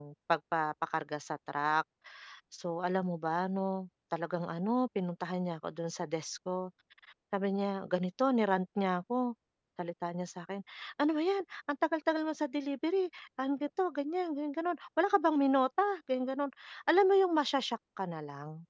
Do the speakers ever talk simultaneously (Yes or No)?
No